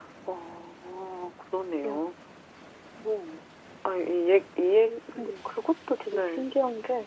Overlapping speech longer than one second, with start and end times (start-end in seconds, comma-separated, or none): none